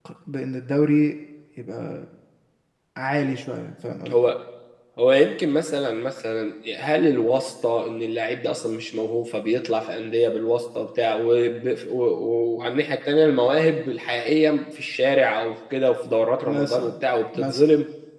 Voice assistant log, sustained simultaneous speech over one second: none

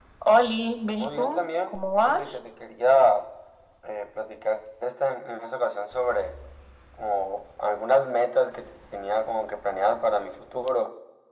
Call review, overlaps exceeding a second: present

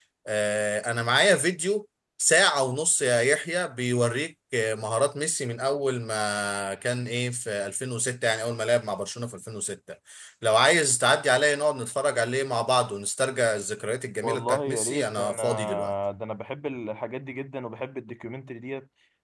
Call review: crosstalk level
present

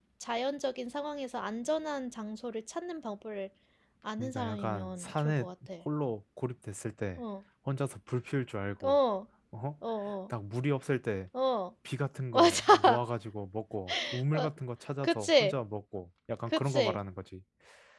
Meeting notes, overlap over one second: present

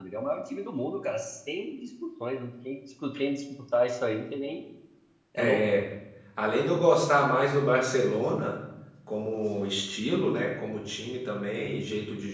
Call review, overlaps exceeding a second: none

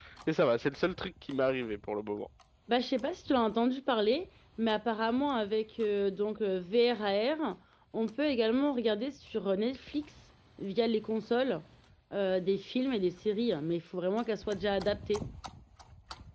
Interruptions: none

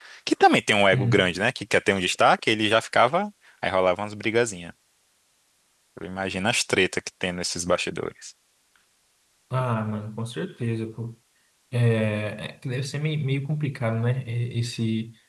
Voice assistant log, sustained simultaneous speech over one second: none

